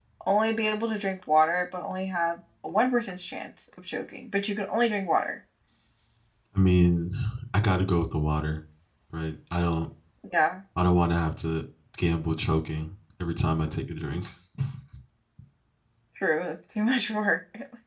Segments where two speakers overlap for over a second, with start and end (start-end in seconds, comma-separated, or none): none